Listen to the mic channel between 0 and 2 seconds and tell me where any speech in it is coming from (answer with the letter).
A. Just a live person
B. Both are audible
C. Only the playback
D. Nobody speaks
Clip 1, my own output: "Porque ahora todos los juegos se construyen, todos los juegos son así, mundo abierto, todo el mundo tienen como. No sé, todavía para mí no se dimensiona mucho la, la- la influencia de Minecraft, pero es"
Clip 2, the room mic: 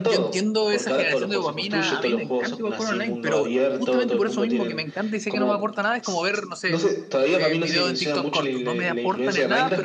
B